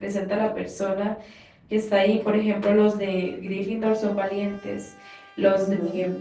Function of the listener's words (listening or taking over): listening